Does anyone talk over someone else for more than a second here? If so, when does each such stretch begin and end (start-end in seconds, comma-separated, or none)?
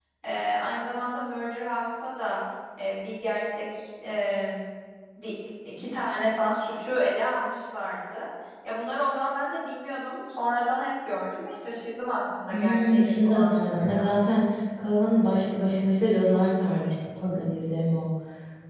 12.5-14.1